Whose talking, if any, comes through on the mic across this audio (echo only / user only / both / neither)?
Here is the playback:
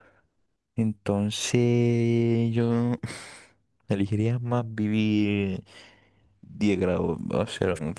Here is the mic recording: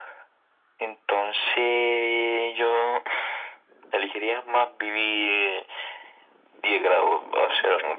echo only